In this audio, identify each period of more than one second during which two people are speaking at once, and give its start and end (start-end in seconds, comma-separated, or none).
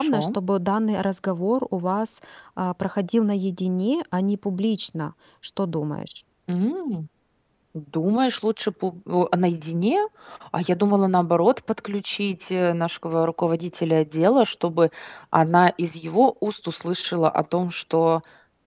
none